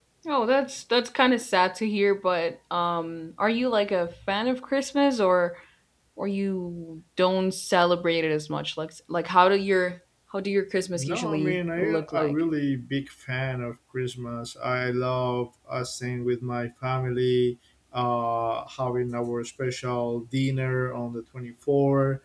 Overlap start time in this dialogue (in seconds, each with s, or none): 11.0 s